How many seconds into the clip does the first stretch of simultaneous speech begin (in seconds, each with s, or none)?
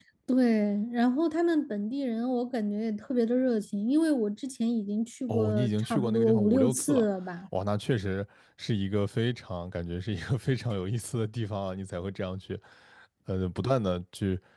5.3 s